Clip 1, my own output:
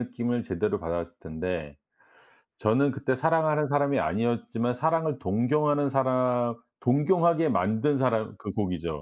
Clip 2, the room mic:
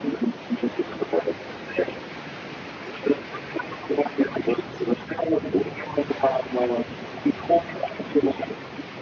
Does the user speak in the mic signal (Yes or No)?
No